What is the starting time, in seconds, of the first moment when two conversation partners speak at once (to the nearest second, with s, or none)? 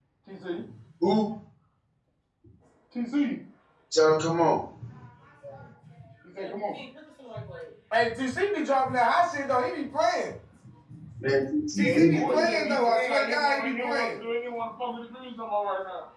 12 s